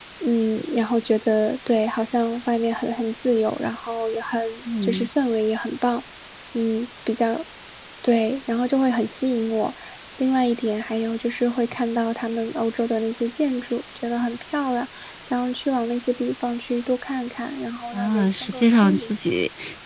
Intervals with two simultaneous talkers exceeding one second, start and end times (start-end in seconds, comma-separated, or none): 17.9-19.1